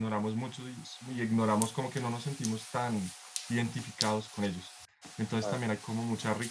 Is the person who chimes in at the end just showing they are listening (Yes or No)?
Yes